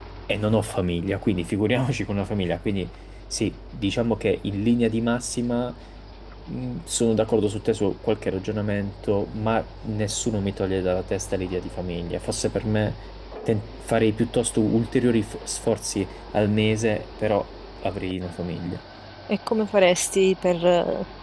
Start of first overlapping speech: none

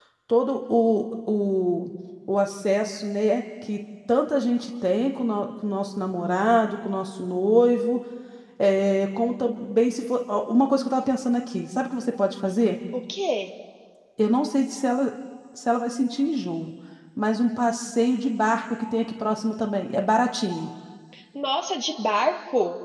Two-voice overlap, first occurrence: none

